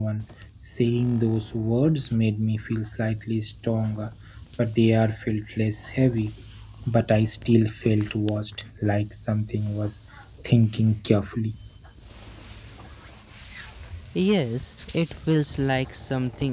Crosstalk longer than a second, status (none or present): none